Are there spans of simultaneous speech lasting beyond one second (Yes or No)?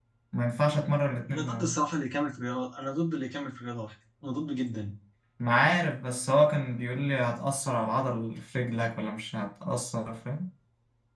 No